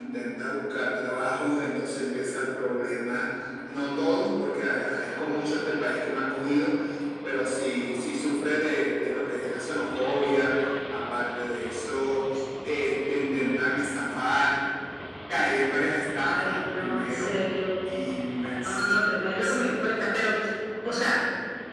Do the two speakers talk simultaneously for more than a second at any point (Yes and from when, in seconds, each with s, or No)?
Yes, from 16.2 s